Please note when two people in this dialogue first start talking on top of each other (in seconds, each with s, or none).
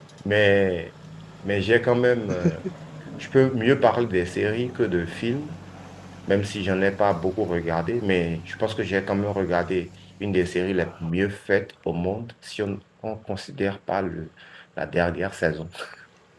none